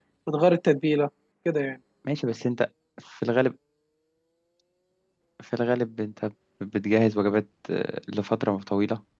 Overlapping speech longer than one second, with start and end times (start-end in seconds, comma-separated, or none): none